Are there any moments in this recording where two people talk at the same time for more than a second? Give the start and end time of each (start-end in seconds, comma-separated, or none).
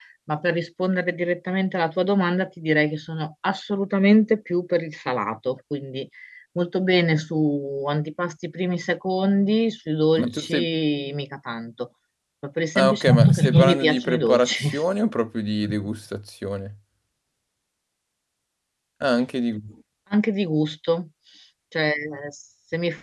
12.8-14.7